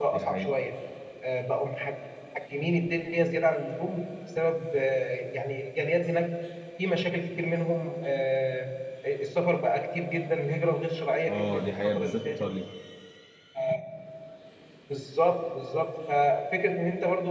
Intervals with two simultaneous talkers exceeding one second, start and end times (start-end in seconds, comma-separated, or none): 11.3-12.5